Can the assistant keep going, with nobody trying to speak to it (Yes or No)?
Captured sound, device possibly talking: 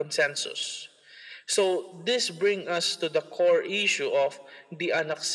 Yes